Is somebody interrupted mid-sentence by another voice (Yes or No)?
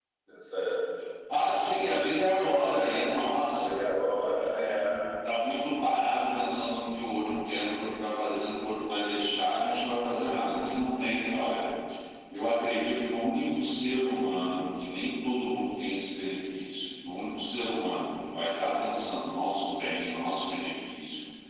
Yes